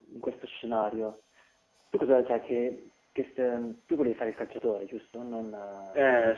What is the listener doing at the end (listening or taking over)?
taking over